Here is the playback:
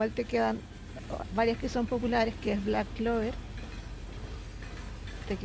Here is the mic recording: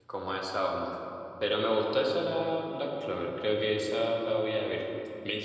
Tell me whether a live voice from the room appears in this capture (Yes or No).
Yes